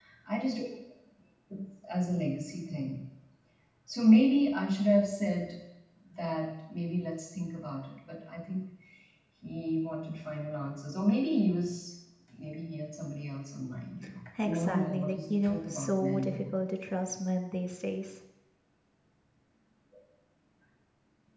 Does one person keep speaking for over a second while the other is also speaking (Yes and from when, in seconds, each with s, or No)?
Yes, from 14.4 s